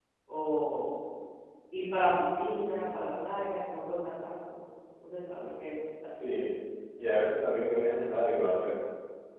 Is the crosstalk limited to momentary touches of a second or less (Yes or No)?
Yes